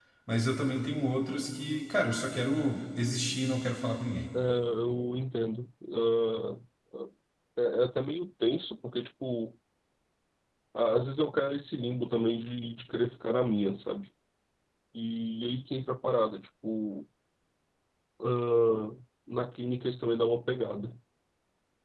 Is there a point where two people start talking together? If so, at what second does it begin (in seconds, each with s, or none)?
none